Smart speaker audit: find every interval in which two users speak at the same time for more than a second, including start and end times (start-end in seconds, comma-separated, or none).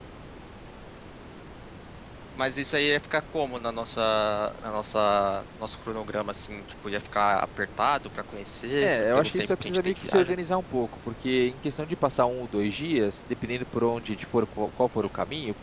8.8-10.3